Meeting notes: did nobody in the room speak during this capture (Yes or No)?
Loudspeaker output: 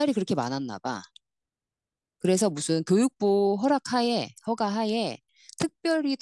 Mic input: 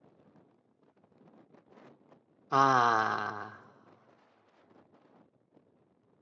No